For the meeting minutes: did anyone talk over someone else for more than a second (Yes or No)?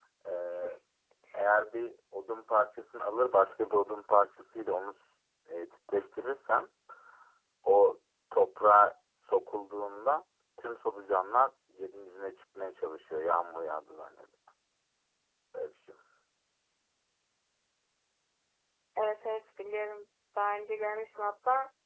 No